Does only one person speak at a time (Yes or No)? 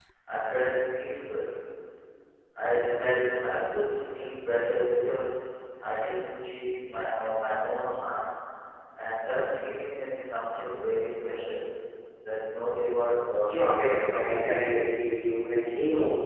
No